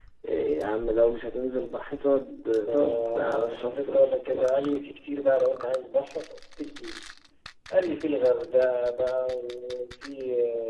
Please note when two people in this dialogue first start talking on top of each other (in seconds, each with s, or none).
2.7 s